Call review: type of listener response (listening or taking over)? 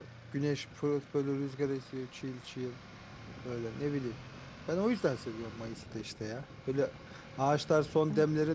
listening